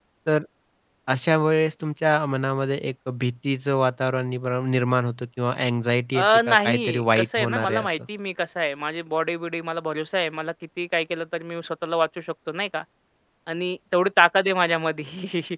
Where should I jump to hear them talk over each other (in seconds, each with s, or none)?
6.1 s